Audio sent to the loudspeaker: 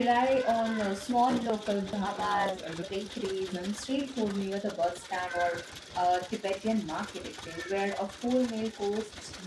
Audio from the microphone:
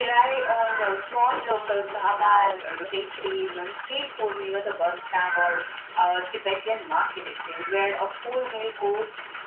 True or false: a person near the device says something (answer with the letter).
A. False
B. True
A